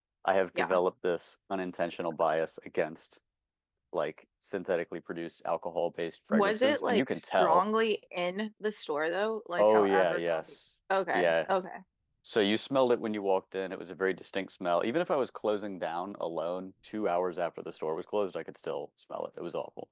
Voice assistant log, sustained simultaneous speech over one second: present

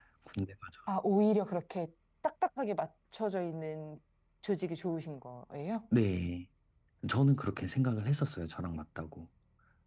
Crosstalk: none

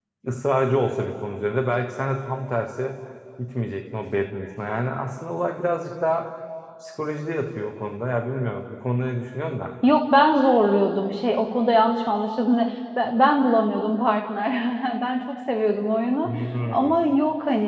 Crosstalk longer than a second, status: none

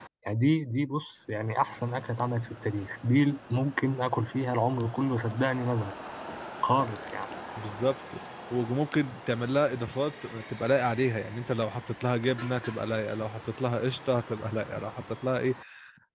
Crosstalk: none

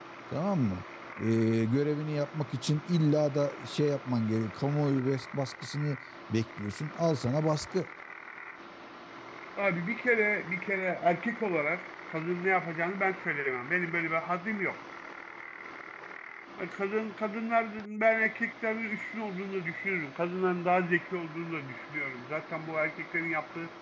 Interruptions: none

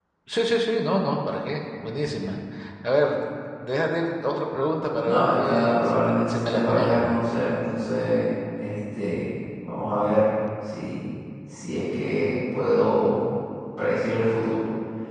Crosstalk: present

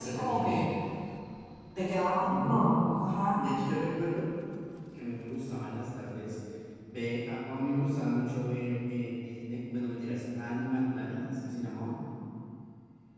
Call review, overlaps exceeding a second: none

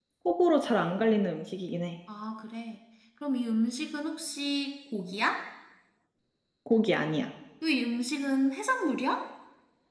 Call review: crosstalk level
none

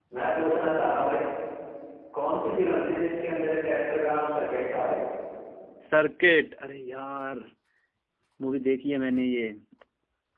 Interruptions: none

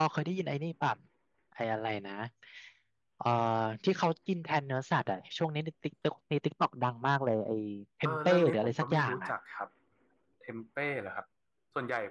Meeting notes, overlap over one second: present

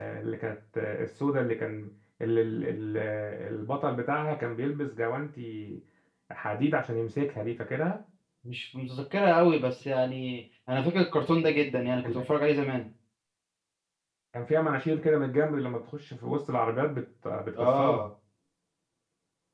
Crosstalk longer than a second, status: none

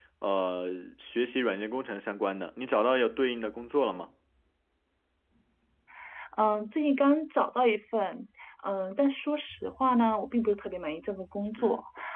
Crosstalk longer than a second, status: none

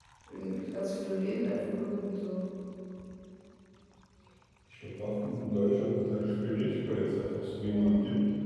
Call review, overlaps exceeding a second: none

